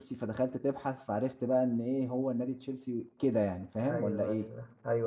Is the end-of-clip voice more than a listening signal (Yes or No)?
Yes